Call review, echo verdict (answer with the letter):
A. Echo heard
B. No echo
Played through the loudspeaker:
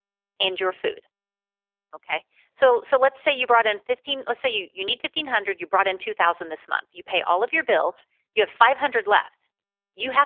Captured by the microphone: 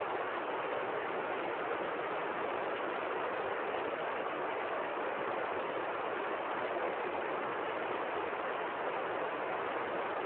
B